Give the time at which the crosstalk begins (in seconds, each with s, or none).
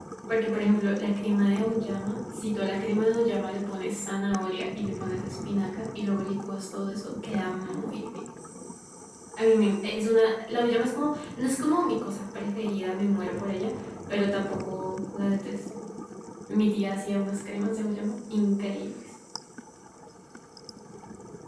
none